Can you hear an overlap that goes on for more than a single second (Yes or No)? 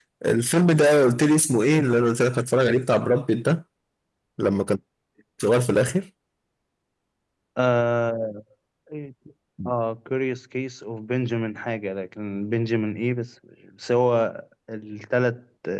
No